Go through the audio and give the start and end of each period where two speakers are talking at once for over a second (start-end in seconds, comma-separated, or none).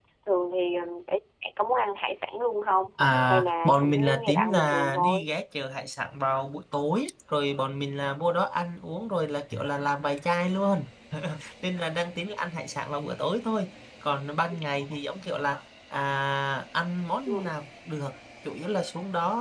3.2-5.3